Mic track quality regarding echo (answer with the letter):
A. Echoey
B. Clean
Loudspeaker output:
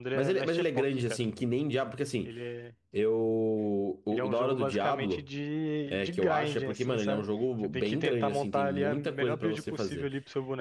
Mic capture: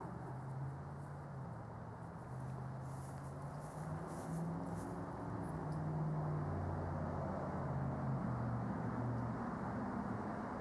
B